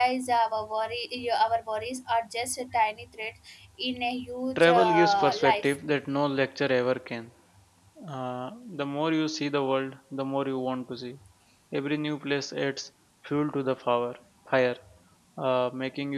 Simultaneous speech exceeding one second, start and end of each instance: 4.6-5.8

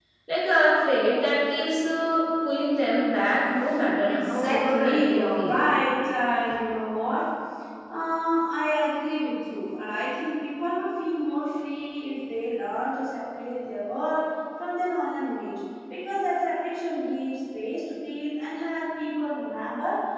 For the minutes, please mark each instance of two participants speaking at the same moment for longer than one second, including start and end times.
4.1-5.6

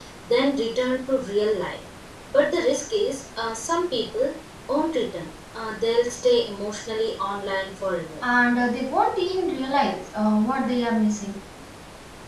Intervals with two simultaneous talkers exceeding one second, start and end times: none

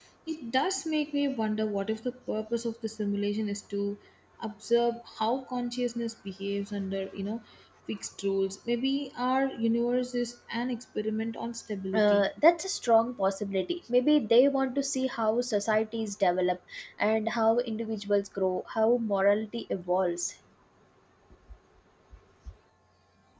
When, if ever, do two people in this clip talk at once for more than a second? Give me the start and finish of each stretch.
none

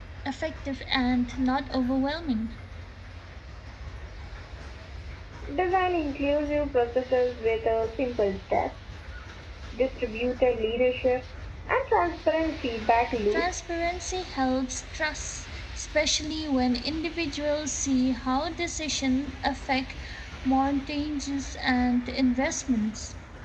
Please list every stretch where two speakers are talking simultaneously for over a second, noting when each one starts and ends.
none

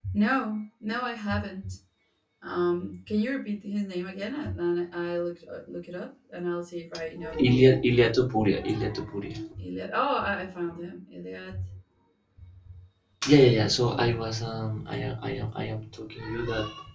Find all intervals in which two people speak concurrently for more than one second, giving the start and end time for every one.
none

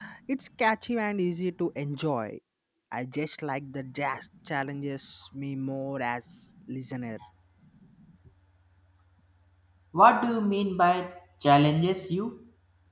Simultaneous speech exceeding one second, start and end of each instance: none

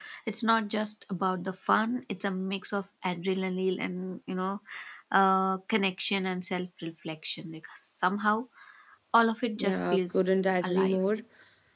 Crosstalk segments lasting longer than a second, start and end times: 9.6-11.0

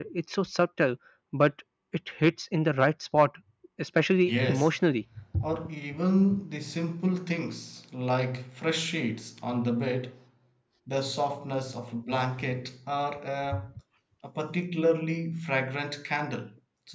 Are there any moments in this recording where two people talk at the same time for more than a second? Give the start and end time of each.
none

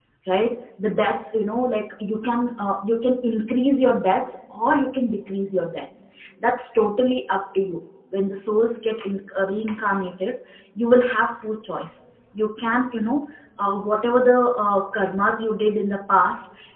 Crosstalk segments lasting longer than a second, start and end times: none

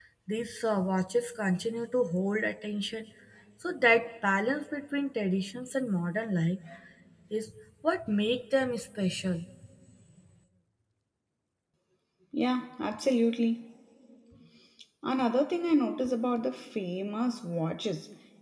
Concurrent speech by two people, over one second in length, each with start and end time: none

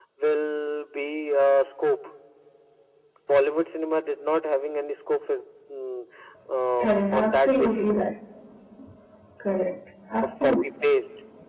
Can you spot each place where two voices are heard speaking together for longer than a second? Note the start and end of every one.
6.8-8.0

